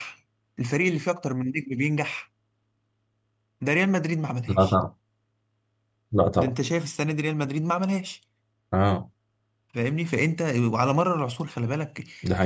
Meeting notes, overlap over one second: none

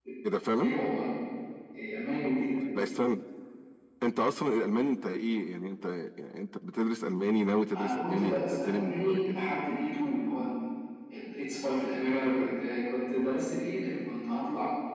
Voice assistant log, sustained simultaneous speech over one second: present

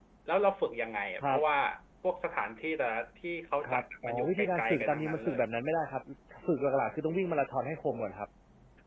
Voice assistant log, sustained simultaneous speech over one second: present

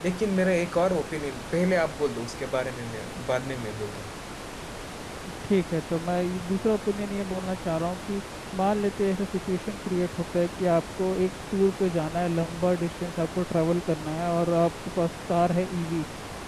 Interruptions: none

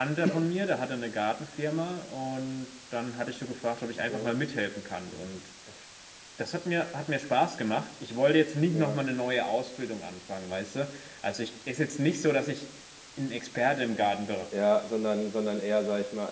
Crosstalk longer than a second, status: none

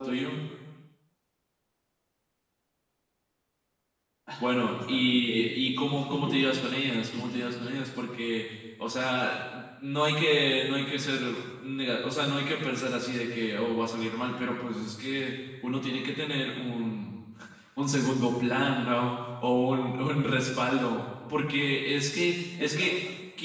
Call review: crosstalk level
present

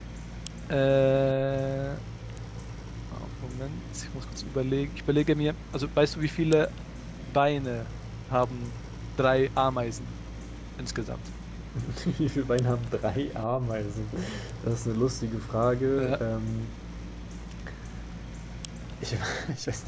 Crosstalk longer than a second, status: none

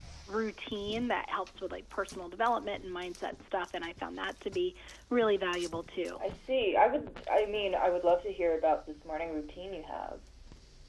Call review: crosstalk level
none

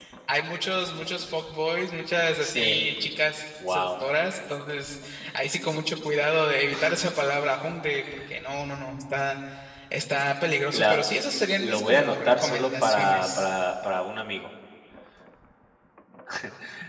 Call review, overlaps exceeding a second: present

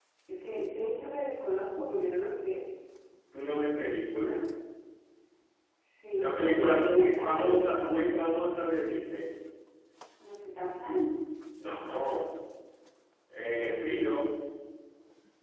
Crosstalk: present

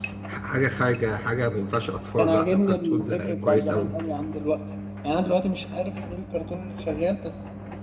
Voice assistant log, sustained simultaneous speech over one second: present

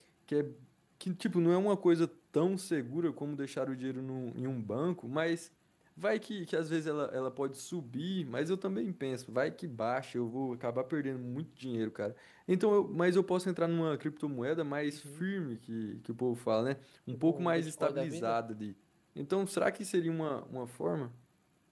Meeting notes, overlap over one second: present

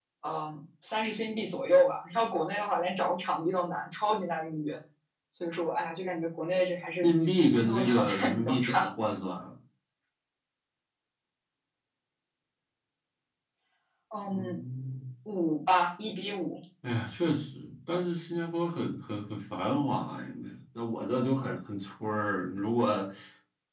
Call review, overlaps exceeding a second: present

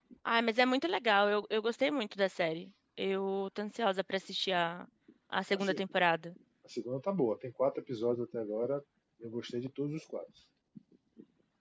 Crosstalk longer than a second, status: none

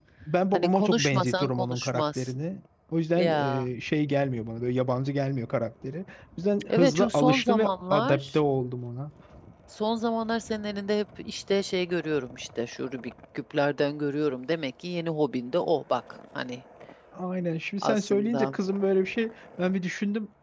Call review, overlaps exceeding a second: present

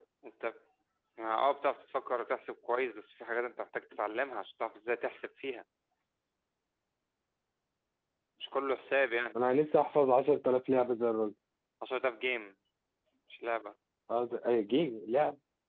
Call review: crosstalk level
none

